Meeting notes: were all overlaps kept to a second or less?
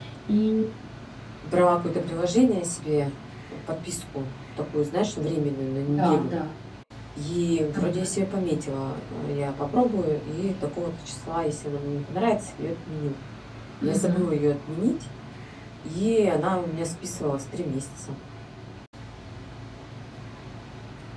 Yes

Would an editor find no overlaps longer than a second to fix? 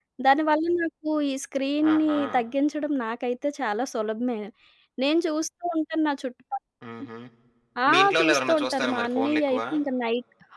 No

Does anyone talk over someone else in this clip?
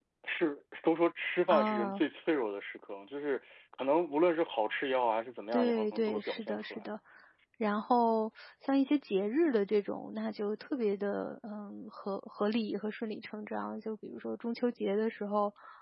Yes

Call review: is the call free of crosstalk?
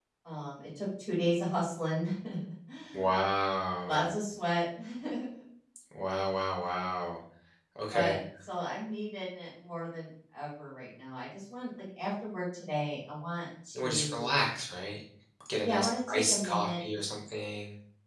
No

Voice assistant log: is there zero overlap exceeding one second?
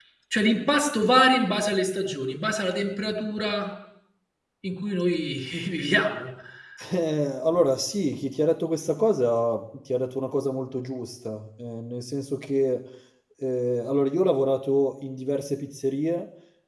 Yes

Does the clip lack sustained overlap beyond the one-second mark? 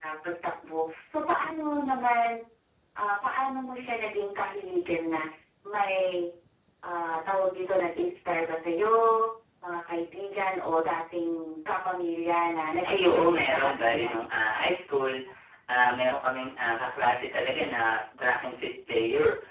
No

